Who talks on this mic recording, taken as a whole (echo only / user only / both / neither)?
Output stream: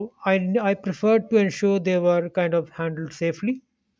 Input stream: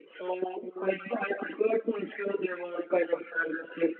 echo only